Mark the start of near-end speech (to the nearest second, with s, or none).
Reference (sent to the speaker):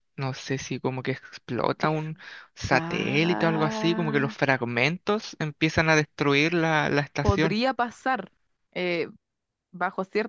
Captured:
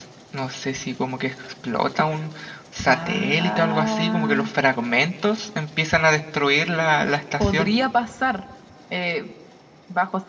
none